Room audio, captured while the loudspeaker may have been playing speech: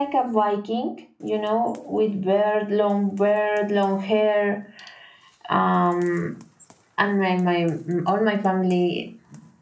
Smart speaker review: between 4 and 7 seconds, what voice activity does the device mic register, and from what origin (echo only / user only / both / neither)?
echo only